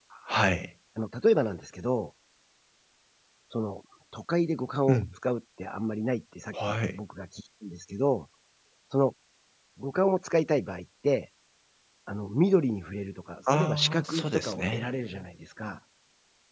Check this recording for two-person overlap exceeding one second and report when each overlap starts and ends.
13.5-14.9

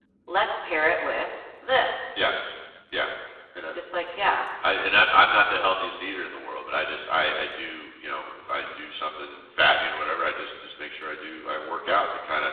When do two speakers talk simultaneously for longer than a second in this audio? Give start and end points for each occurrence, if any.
none

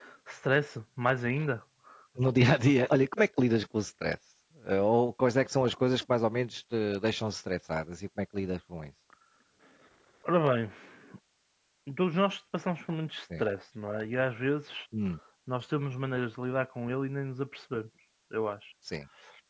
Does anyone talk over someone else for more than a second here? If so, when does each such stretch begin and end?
none

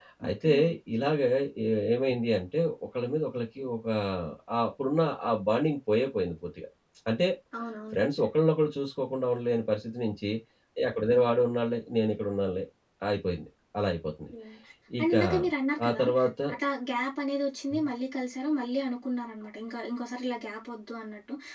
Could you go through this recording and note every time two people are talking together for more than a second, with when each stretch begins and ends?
none

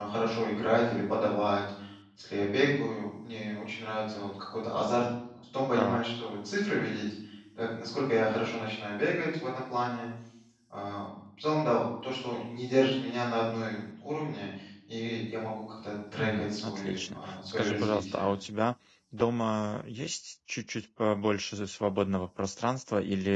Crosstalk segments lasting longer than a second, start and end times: 16.2-18.3

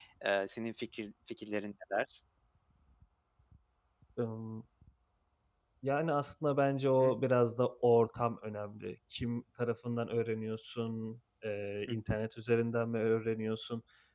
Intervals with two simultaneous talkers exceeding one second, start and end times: none

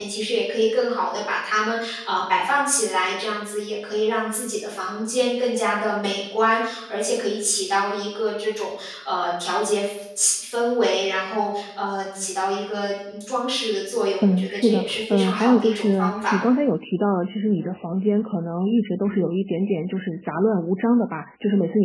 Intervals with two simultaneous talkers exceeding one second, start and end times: 14.2-16.4

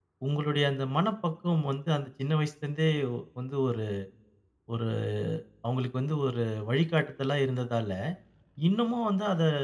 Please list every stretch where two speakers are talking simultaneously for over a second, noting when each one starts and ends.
none

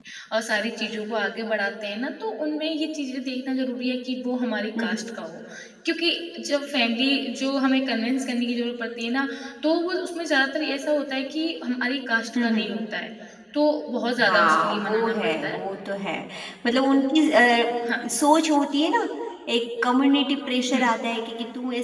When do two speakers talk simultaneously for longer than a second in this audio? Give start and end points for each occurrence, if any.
14.2-15.6

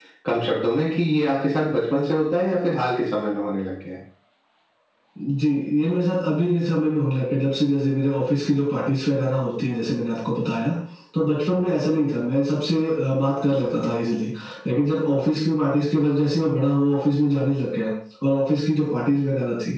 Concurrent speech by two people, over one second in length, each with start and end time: none

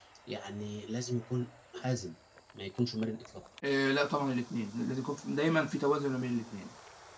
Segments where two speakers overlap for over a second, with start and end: none

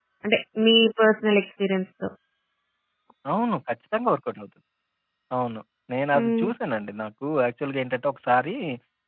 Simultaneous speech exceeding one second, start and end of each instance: none

